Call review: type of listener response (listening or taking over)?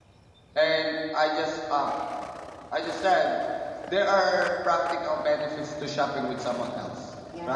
taking over